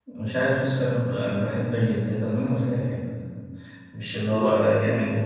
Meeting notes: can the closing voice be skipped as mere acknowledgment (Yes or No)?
Yes